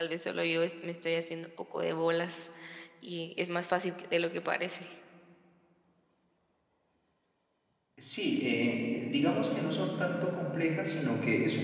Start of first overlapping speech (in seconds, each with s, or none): none